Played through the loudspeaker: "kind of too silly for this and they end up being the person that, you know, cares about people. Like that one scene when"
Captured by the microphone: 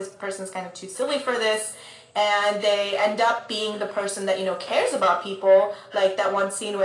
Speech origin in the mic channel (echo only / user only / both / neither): echo only